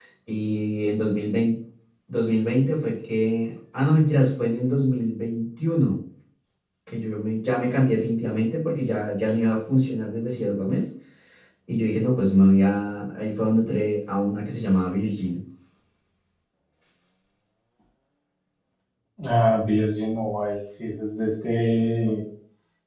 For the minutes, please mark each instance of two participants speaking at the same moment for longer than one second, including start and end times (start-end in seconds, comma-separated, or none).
none